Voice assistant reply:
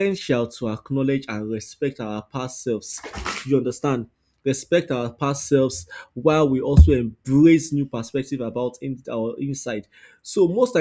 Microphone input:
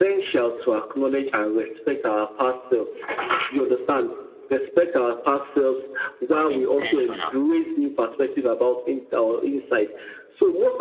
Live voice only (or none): was intentional